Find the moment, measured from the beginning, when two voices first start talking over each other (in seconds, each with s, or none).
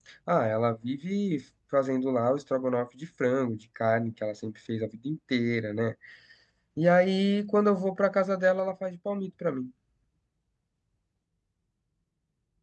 none